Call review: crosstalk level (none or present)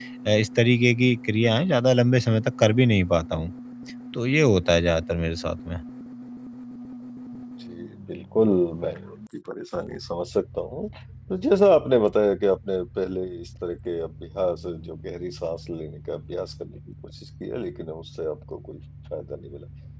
none